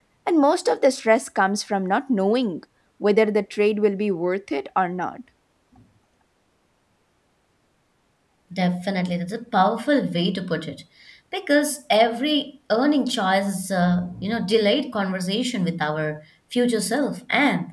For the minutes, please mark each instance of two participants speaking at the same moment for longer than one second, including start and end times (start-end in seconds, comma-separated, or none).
none